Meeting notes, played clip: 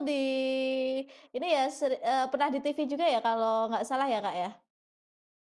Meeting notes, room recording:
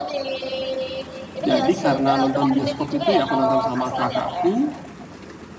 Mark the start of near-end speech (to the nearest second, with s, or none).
1 s